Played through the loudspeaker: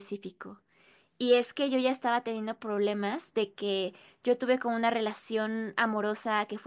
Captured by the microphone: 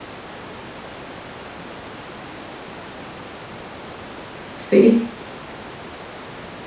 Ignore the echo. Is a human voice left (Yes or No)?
Yes